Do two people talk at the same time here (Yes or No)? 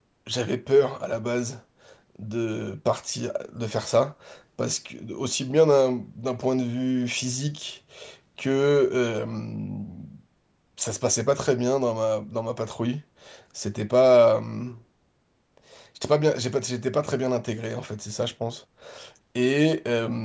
No